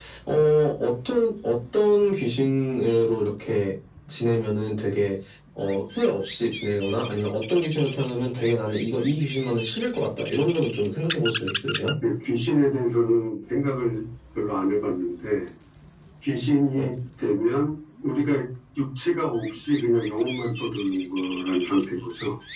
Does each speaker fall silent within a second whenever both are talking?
Yes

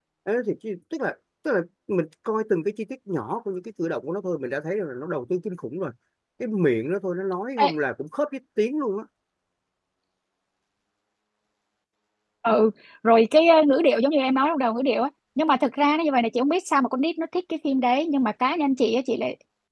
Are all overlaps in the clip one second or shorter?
Yes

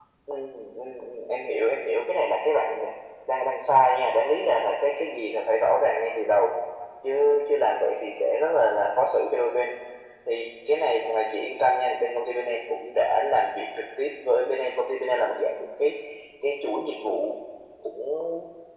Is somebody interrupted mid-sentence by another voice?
No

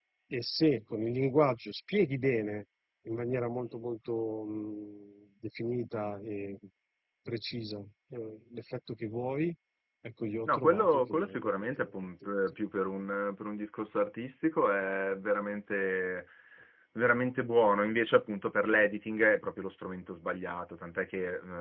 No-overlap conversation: No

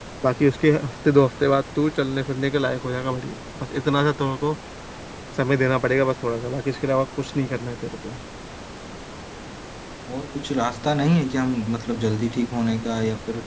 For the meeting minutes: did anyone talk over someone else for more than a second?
No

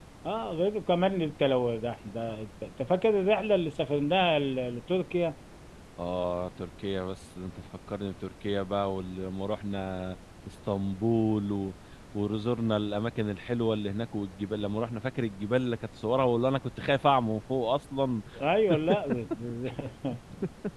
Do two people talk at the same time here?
No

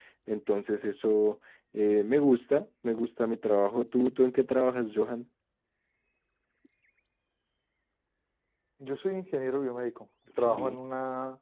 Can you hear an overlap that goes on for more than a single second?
No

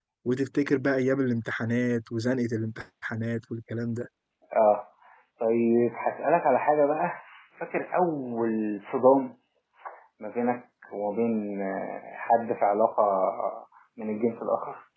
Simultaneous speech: No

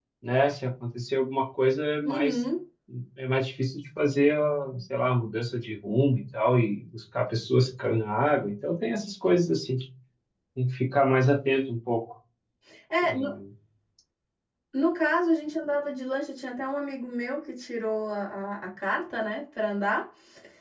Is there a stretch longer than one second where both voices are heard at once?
No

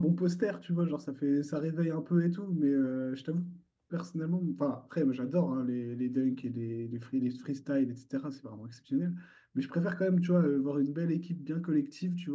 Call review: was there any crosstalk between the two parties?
No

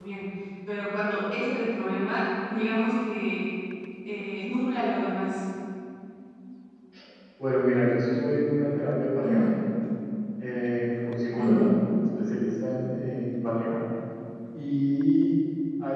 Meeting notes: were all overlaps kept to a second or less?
Yes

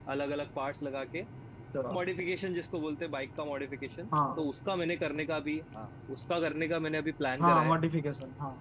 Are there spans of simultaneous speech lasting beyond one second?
No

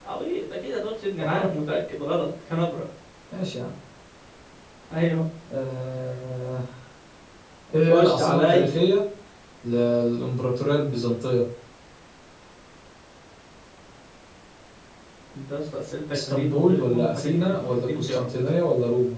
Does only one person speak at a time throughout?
No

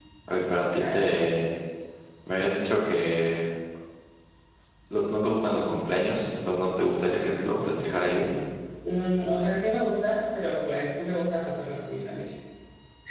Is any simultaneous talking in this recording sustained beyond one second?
No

